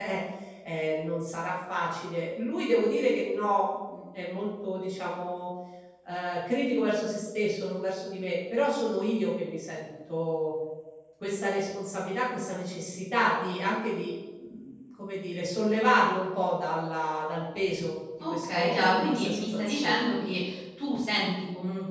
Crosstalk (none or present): present